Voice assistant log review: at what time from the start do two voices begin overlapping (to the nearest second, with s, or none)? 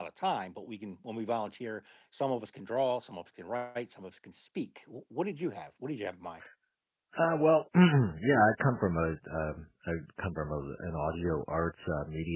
none